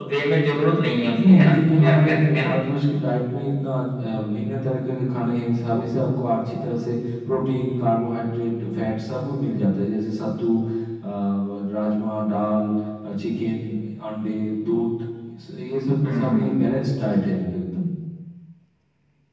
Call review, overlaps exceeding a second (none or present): present